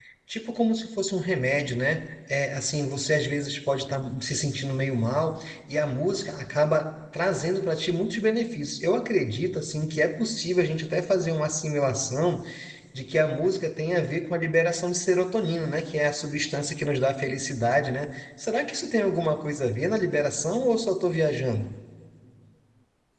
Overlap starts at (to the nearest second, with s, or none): none